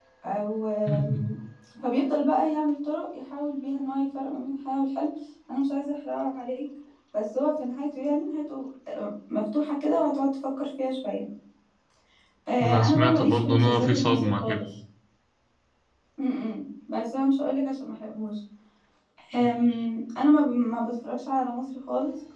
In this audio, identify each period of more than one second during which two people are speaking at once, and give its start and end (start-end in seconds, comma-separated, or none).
12.6-14.7